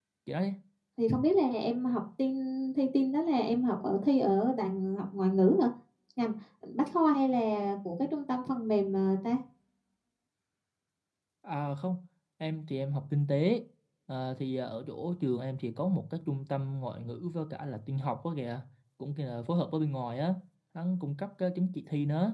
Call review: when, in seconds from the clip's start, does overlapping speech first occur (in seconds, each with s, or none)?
none